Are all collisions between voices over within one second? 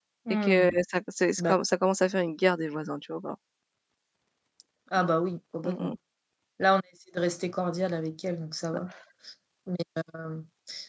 Yes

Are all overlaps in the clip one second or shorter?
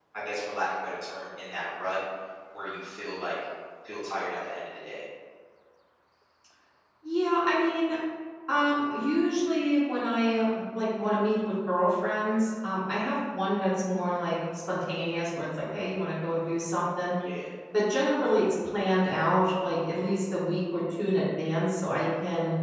Yes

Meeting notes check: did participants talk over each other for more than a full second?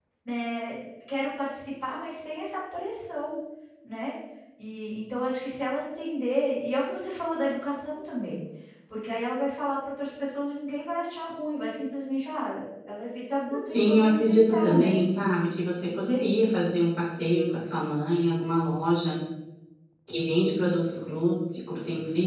Yes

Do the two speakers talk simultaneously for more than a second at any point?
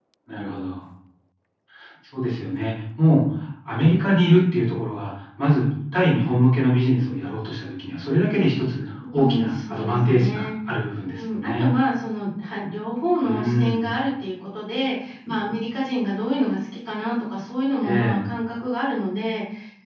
Yes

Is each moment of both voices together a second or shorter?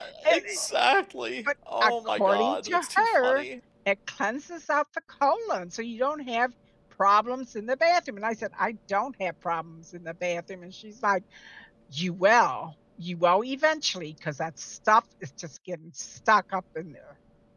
No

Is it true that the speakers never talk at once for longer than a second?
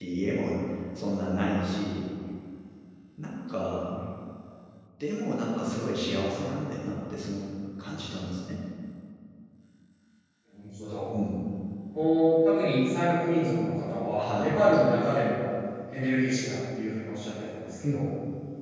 Yes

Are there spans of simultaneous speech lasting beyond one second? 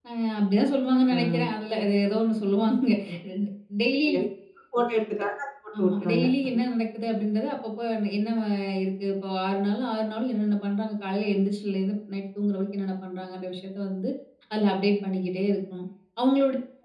No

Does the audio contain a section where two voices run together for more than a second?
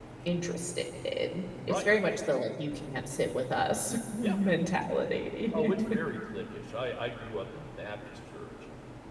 No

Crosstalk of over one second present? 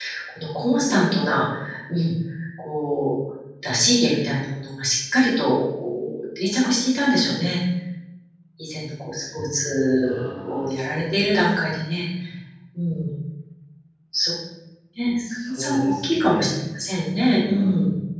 Yes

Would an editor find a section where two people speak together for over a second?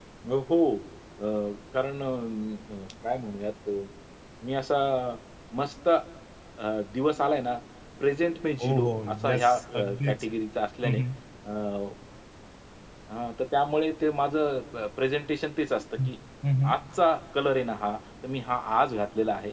Yes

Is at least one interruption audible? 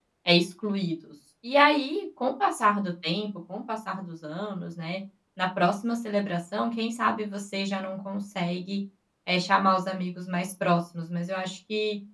No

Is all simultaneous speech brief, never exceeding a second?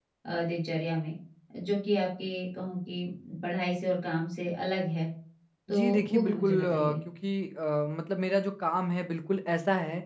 No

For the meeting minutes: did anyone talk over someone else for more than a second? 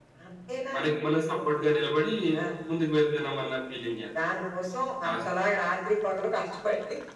No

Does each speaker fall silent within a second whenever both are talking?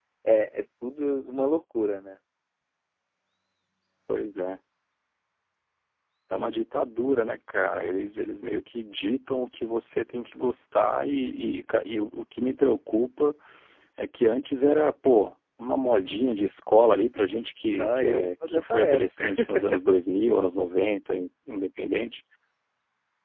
No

